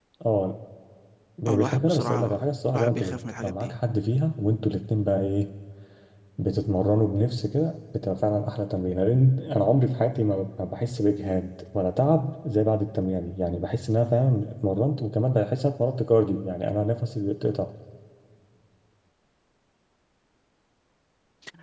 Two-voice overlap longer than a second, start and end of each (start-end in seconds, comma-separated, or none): 1.5-3.7